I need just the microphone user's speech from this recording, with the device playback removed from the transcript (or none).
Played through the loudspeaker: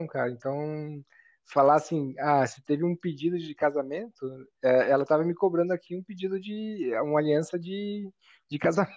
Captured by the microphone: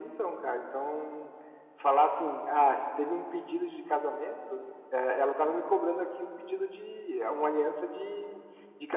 none